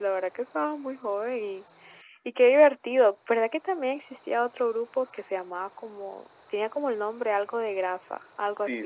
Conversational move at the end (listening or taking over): taking over